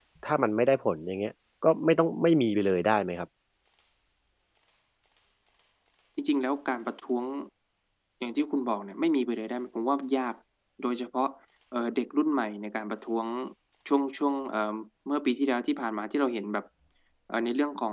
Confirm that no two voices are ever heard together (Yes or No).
Yes